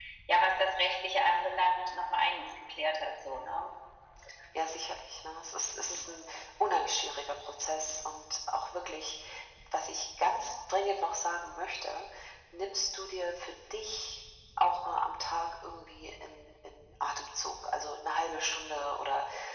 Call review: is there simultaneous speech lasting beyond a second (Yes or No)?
No